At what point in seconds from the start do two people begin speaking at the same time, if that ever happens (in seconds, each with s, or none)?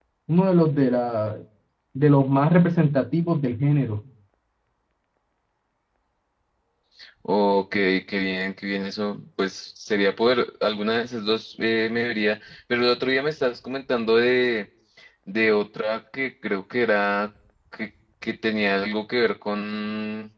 none